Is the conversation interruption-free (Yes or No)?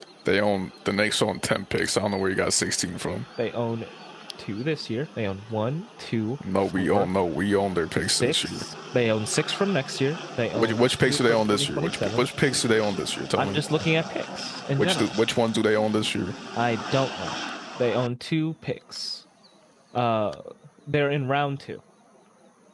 No